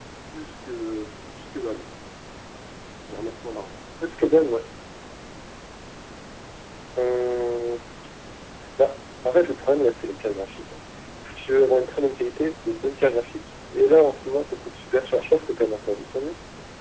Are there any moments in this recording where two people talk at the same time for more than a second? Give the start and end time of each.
none

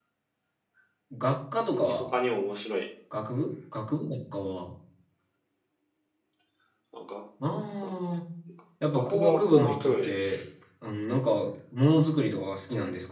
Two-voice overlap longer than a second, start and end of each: 8.9-10.2

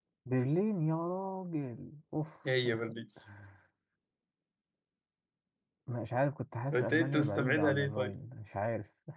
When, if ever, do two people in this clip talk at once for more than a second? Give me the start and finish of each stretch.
6.7-8.1

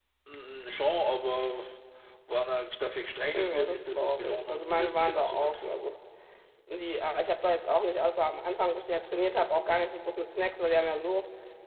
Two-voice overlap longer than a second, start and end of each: 3.3-5.7

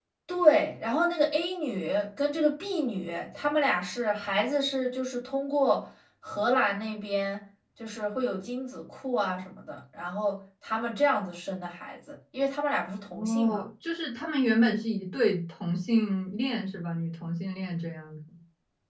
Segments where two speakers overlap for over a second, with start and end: none

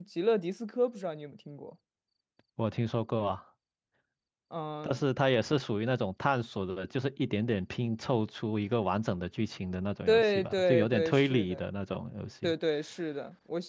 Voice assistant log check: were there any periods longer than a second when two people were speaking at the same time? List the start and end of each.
10.1-11.7

